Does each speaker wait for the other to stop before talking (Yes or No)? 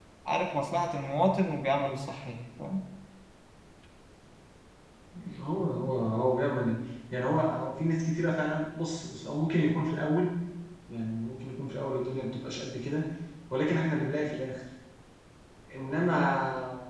Yes